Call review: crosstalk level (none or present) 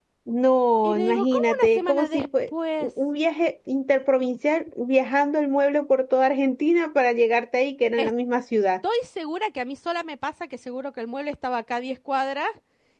present